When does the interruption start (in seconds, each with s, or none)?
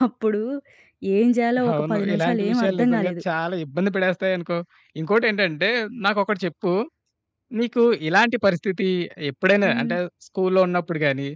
1.7 s